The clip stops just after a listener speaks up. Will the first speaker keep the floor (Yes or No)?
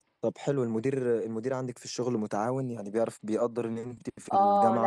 No